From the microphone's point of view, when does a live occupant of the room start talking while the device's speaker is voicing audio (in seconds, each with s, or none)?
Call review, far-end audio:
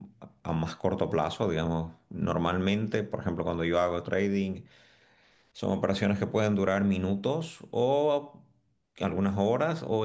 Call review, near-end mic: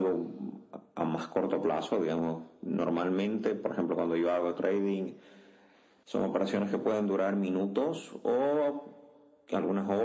none